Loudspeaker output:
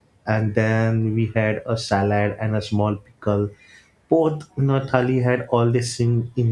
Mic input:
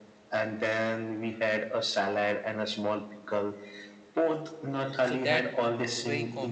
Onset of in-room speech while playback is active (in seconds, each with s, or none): 5.1 s